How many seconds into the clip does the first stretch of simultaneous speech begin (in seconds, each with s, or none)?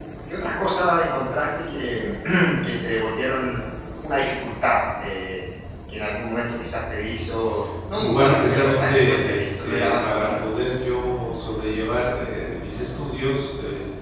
8.0 s